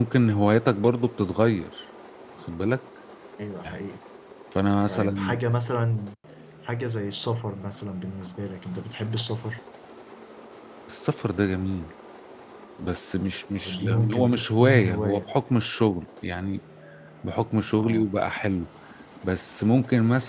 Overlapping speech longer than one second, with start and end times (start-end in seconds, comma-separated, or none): 13.6-15.2